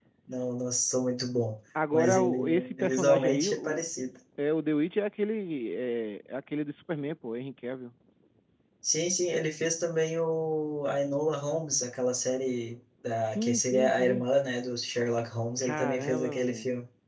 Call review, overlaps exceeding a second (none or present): present